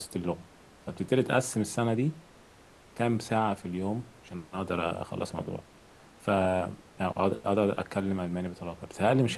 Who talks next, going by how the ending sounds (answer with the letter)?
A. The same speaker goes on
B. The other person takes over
A